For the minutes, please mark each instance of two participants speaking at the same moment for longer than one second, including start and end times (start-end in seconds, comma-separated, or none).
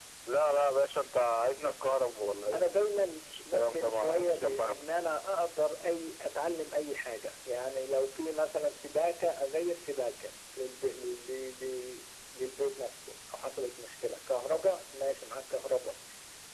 3.5-4.8